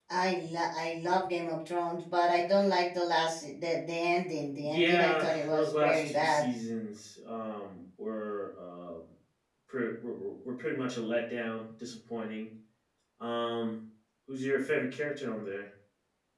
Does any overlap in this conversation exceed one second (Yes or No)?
Yes